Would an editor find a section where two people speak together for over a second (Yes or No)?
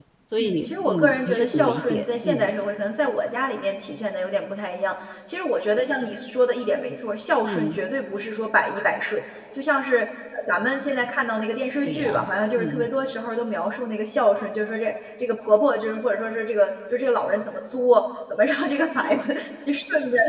Yes